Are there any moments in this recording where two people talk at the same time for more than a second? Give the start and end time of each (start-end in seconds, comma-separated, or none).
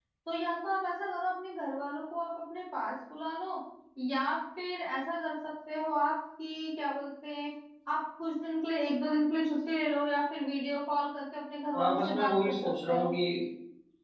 11.8-13.1